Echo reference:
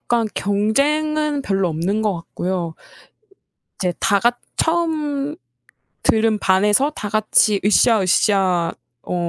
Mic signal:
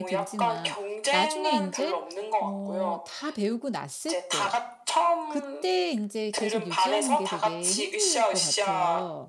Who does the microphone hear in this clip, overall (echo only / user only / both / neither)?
both